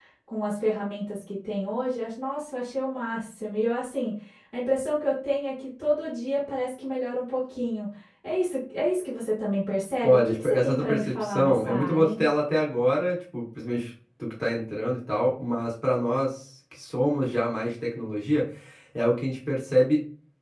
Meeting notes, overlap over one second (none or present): present